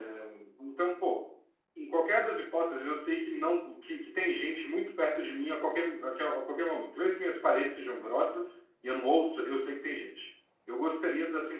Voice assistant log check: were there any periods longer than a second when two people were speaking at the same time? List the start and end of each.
none

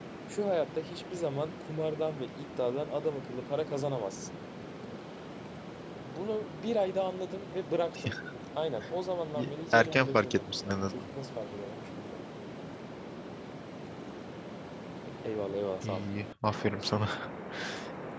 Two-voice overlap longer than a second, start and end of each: 9.3-10.9

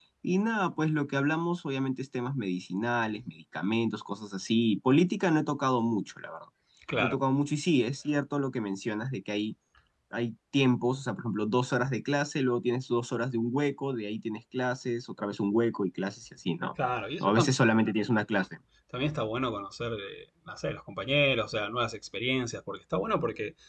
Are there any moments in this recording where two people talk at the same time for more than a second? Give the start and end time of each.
none

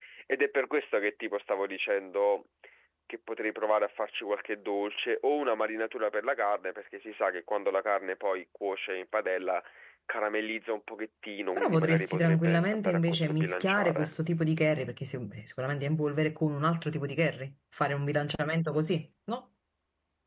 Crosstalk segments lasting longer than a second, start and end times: 11.6-14.1

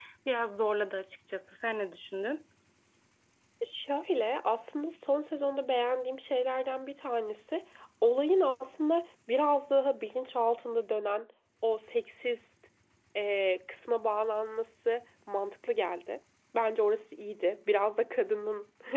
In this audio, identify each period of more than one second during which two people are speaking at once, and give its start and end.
none

